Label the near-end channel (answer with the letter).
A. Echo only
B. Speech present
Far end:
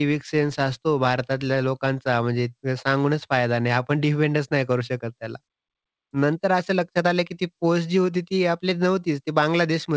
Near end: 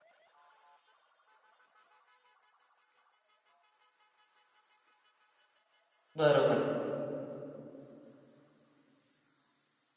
B